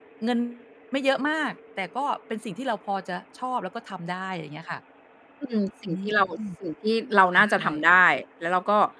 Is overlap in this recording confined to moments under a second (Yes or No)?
Yes